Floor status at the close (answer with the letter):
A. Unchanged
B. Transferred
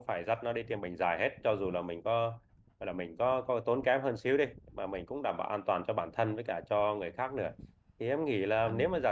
A